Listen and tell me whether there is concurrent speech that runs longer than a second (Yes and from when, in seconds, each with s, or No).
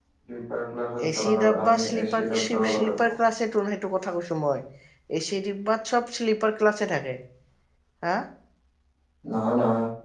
Yes, from 1.2 s